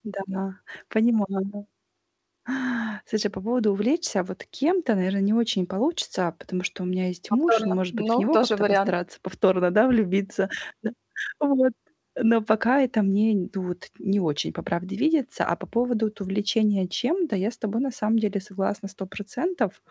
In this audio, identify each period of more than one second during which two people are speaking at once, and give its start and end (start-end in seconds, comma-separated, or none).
7.5-8.9